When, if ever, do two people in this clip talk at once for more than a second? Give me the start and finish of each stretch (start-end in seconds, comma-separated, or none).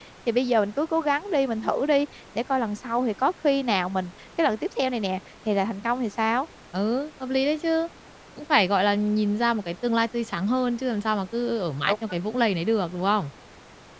none